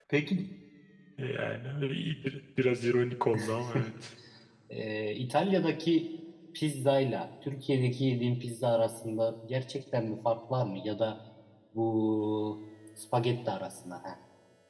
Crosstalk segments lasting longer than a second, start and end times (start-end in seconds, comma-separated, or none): none